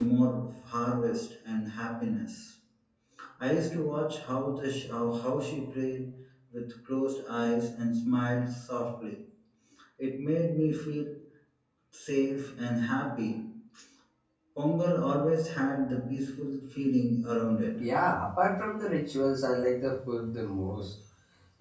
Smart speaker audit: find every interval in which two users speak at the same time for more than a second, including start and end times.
none

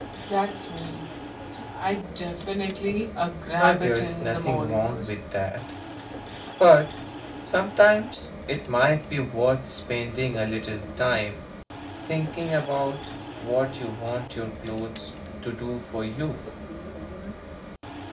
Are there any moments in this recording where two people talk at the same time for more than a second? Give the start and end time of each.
3.6-5.2

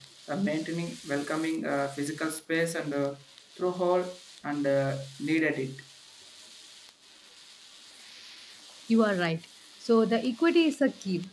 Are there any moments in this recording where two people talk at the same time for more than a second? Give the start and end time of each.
none

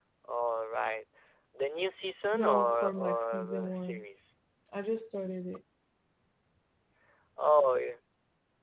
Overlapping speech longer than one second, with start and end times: 2.3-4.0

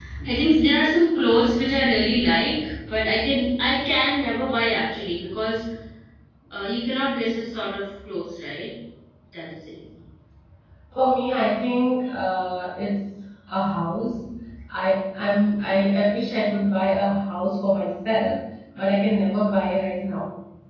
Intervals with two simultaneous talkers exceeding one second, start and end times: none

